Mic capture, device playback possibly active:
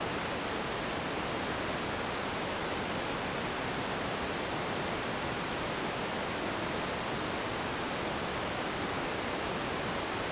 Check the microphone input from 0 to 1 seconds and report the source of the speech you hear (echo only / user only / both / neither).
neither